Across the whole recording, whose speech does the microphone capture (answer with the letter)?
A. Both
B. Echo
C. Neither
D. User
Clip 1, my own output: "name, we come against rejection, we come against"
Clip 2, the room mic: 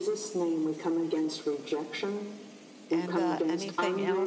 A